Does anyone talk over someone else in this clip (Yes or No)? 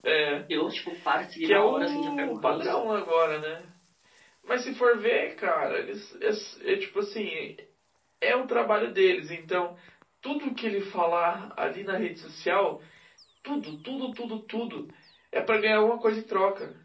Yes